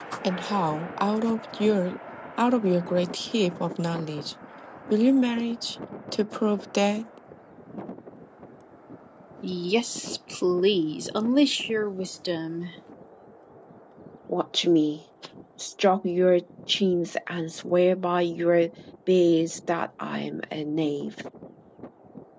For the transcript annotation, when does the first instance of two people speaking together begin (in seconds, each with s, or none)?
none